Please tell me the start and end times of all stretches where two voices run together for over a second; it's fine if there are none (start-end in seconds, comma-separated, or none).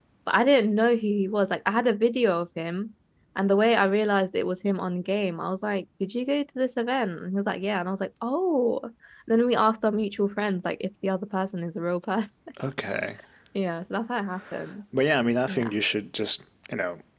none